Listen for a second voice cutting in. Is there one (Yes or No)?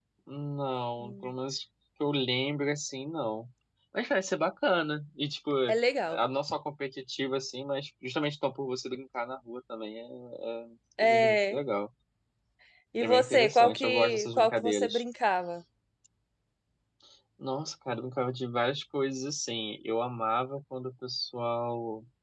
Yes